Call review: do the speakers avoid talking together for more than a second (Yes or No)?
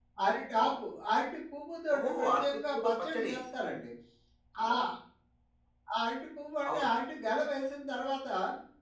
No